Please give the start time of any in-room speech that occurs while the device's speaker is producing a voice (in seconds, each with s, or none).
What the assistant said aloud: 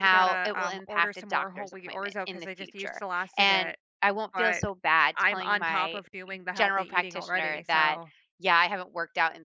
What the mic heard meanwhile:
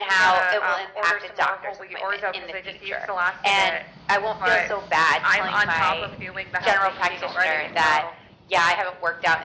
none